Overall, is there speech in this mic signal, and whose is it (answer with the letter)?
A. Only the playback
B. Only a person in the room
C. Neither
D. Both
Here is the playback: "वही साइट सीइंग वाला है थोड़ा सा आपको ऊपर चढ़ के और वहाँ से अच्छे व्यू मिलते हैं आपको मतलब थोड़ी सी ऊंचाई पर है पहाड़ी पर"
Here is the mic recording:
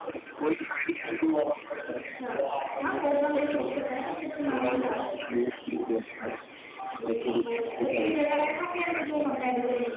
D